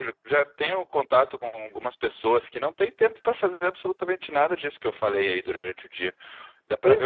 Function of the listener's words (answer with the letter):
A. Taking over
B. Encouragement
B